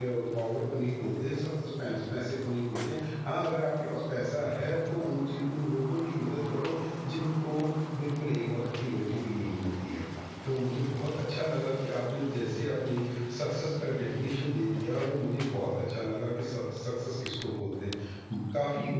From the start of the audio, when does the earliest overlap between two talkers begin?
none

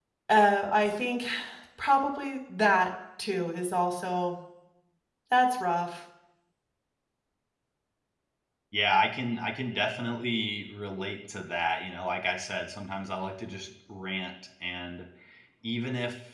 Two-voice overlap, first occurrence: none

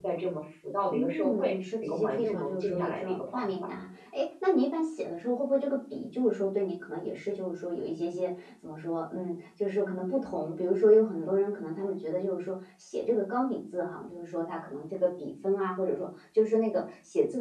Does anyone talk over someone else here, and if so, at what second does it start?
0.9 s

